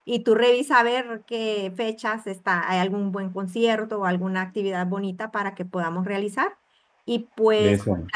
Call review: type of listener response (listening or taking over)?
listening